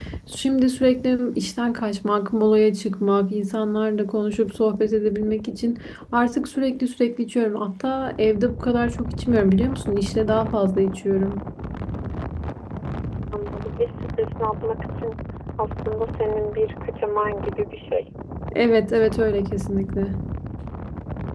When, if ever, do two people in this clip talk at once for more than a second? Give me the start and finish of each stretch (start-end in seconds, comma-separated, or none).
none